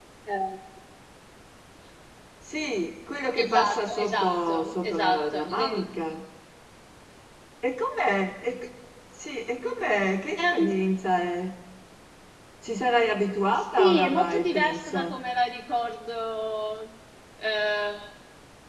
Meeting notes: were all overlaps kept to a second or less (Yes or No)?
No